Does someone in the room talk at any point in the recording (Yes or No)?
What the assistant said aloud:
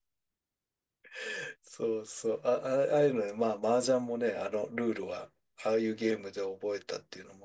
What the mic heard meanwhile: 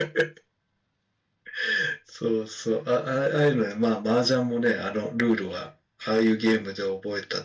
No